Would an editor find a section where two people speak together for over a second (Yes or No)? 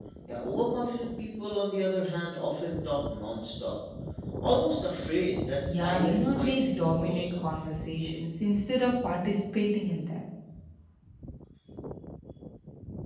Yes